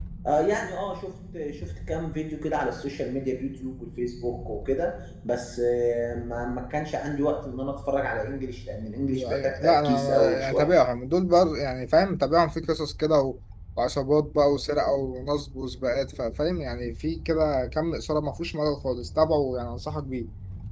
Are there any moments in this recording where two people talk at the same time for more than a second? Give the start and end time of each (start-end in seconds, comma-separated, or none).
9.1-10.7